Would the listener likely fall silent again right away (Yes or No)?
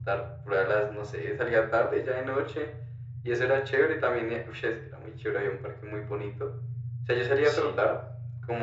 Yes